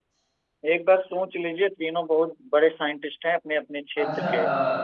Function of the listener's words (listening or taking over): taking over